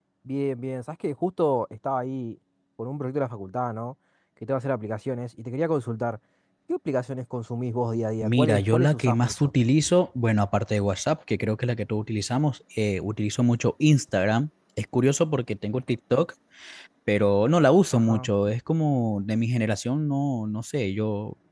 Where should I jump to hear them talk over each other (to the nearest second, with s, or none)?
8 s